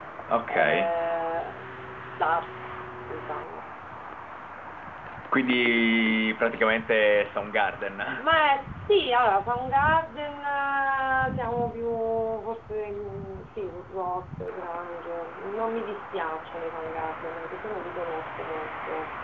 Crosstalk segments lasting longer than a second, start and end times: none

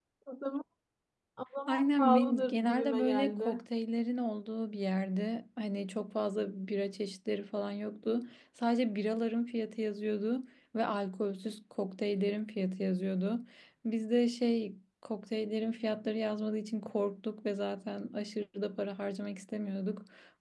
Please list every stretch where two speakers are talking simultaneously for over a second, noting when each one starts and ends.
1.7-3.6

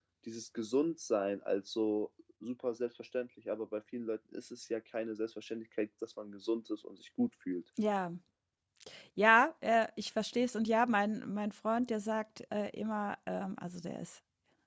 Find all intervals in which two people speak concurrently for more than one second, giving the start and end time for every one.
none

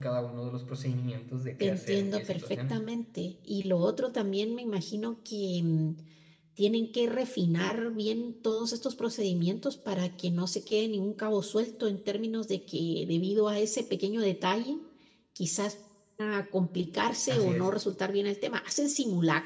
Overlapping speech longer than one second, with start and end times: 1.6-2.8

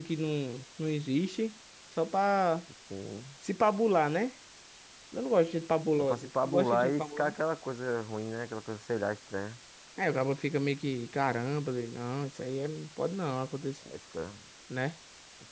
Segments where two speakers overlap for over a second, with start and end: 6.0-7.4

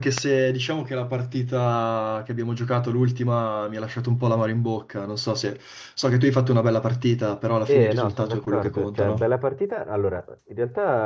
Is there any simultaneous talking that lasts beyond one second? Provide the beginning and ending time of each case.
7.7-9.3

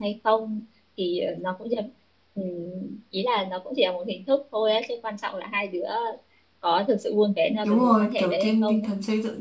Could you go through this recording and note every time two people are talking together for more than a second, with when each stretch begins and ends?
7.5-8.9

